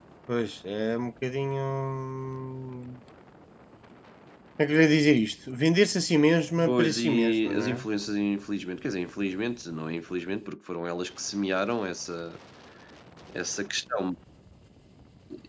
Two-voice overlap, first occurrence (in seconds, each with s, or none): 6.6 s